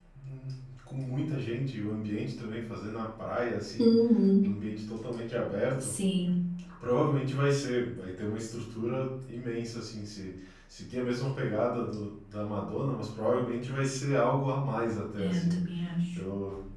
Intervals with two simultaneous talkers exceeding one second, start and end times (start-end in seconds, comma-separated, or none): none